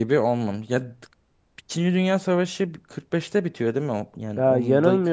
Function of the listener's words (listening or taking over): taking over